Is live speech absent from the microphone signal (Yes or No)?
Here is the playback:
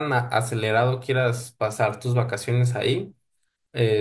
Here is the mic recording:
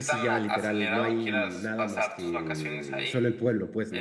No